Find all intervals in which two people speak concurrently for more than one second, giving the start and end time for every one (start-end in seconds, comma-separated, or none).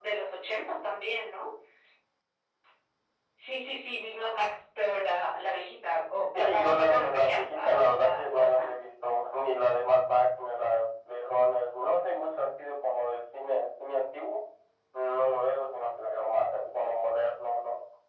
6.3-8.7